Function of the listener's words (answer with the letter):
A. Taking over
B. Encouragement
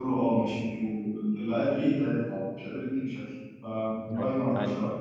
A